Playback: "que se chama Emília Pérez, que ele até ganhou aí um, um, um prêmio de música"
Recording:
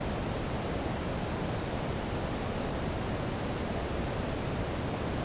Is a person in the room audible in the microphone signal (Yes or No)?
No